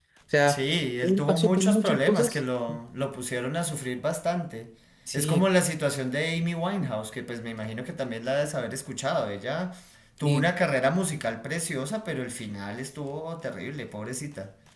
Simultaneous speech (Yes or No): Yes